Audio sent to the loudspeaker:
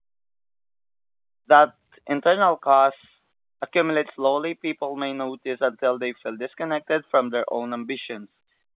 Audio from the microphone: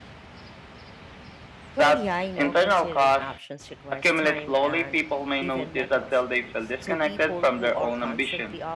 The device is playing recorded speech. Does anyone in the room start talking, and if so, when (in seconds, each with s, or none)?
1.8 s